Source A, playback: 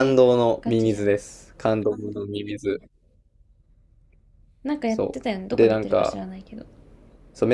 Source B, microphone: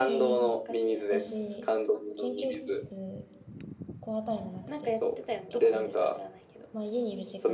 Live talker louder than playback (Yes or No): No